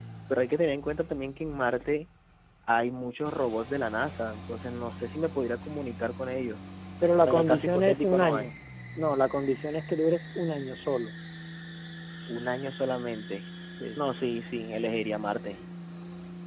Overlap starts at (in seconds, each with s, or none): 7.2 s